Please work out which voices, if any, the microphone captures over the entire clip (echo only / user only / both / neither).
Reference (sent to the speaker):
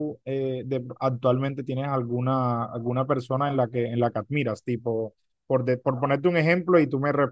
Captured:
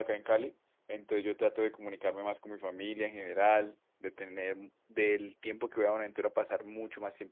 user only